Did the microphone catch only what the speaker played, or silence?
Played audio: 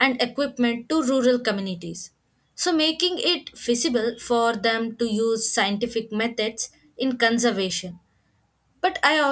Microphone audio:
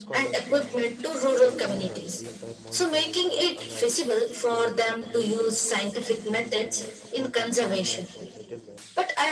No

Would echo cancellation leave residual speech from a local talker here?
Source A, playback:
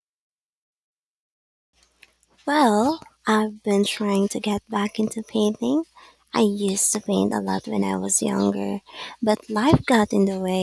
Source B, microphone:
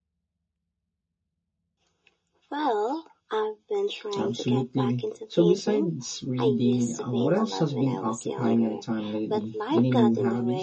Yes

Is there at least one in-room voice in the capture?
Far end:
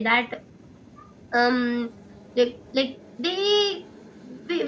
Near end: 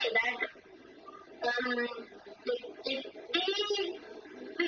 No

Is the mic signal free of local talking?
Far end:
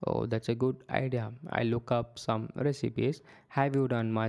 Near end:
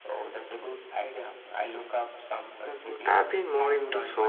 No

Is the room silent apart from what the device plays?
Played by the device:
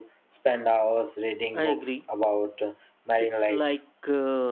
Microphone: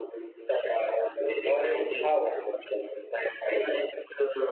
No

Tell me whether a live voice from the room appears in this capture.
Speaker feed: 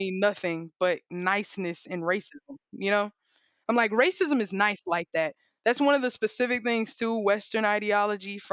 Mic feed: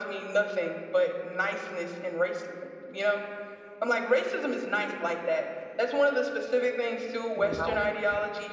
Yes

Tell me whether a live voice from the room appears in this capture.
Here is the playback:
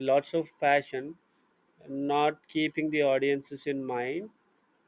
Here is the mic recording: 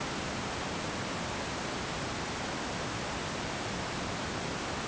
No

